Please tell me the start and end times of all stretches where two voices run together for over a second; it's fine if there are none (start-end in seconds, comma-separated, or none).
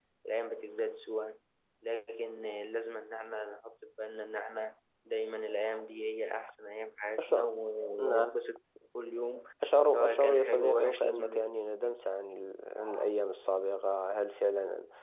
9.9-11.9